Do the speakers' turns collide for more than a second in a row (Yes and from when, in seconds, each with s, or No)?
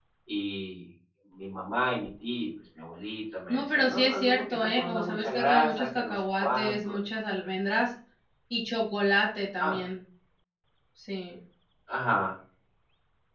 Yes, from 3.5 s